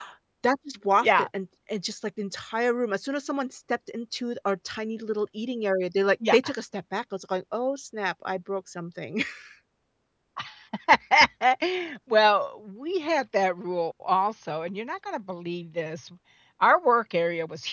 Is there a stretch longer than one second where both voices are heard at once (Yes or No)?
No